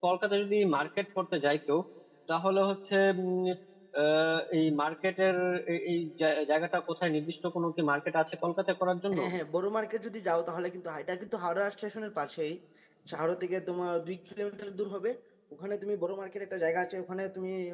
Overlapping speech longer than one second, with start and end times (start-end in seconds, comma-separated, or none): none